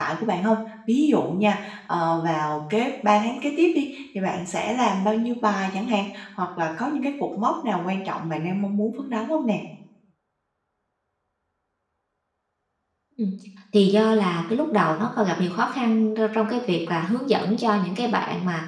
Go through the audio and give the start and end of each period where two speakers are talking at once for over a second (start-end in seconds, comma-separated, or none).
none